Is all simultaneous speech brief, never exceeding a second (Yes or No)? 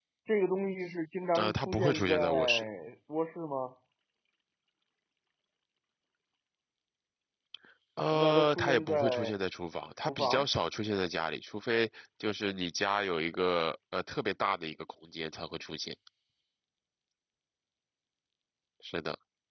No